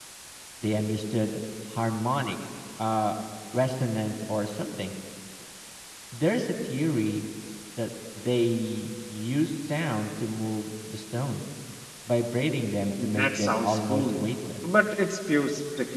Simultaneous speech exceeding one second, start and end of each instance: 13.0-14.3

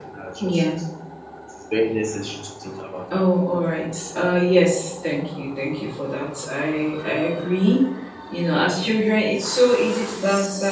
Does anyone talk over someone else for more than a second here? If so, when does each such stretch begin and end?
none

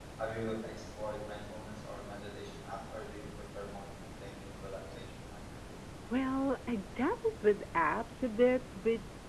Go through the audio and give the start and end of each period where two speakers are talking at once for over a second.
none

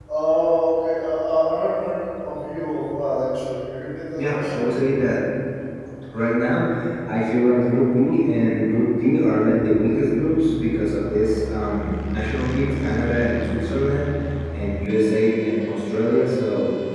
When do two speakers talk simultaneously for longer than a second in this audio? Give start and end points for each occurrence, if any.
none

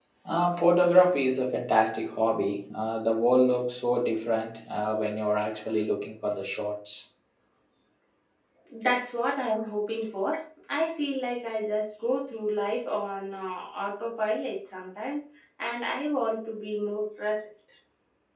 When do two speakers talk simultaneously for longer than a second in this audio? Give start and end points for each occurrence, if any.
none

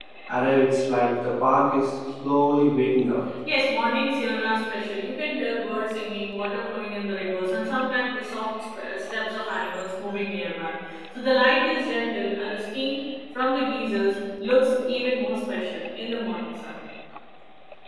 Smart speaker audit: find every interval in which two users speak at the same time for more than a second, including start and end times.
none

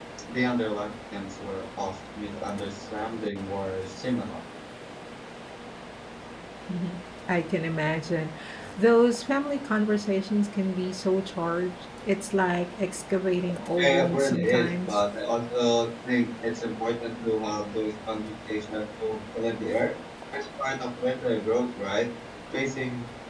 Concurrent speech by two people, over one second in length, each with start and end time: 13.8-15.0

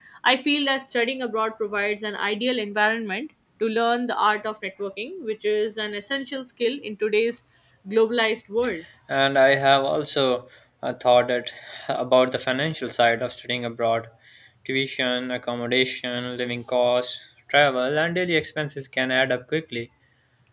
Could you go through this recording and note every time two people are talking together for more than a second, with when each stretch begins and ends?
none

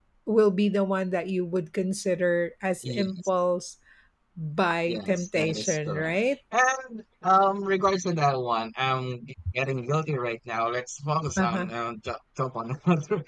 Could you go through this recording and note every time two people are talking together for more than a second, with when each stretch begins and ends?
4.9-6.2

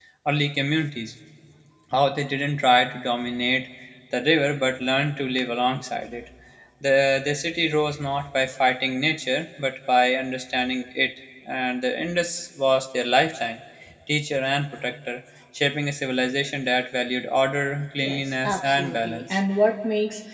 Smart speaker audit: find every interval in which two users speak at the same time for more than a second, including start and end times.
18.0-19.4

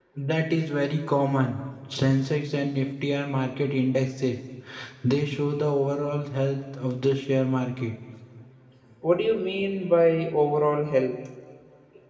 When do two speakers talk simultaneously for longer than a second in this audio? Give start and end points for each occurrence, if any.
none

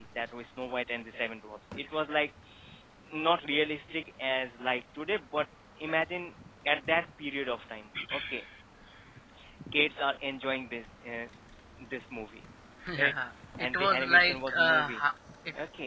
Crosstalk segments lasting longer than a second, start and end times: 13.7-15.0

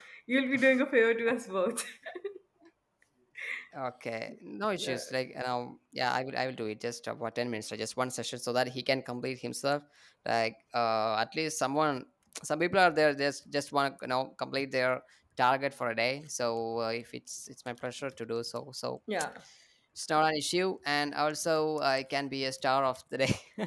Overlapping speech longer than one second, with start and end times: none

